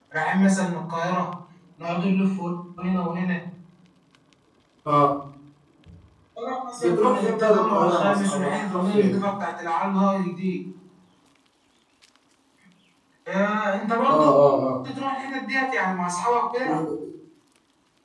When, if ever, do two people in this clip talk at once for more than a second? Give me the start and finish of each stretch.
6.8-9.1

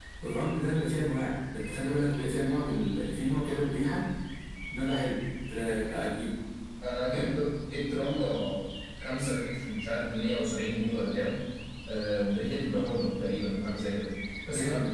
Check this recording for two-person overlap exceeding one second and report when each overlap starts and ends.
none

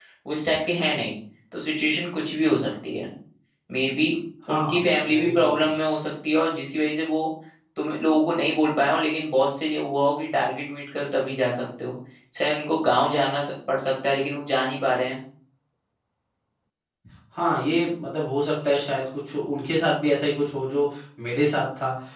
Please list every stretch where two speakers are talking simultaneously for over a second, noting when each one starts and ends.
4.5-5.7

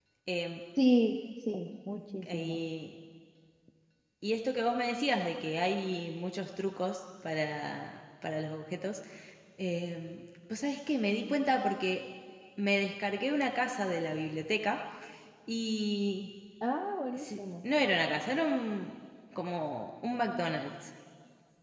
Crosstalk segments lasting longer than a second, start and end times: none

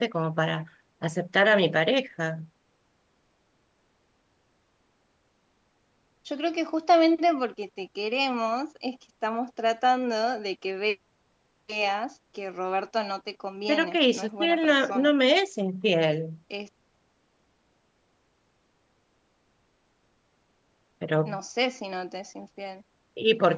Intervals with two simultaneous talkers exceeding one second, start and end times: 13.7-15.1

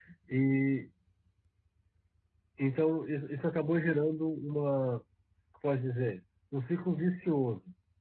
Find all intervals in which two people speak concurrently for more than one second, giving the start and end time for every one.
none

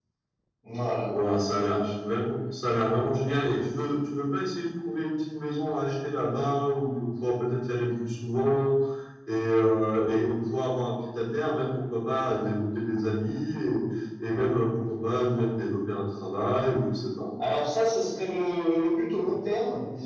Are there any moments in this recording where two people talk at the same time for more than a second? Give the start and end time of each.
none

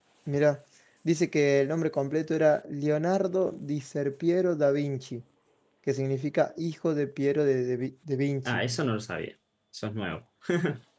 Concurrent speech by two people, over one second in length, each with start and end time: none

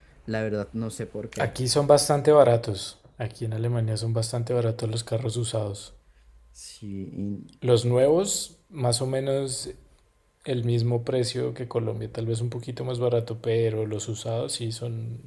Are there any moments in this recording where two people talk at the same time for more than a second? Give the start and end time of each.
none

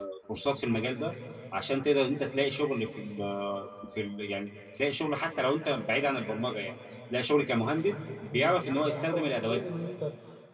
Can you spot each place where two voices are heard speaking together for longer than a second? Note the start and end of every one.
8.3-9.6

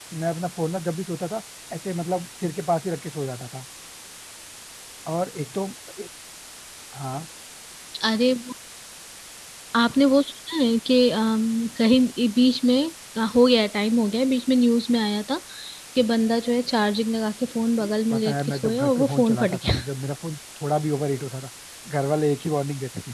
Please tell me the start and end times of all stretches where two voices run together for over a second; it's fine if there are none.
17.8-19.8

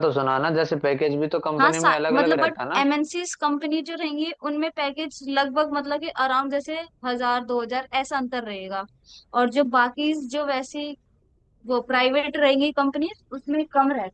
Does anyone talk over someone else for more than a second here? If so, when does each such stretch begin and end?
1.6-2.8

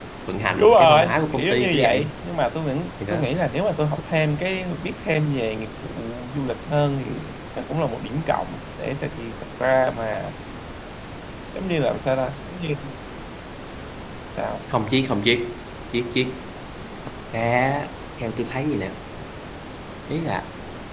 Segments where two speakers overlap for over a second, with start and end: 0.6-2.1

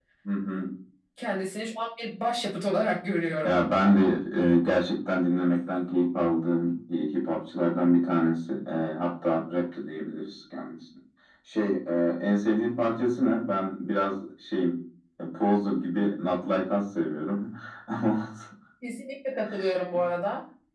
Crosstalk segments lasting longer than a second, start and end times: none

